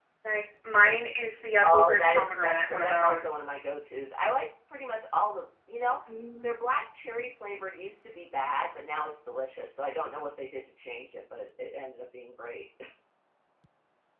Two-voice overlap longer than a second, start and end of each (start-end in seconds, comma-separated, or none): 1.6-3.3